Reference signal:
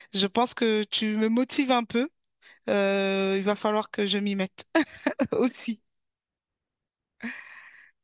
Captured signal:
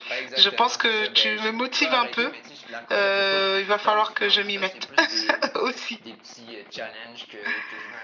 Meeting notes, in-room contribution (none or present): present